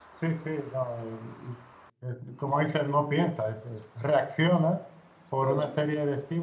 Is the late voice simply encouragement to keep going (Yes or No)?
Yes